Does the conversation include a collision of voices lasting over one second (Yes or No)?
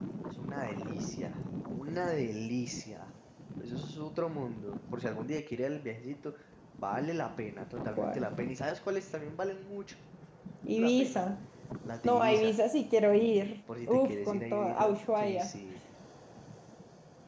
Yes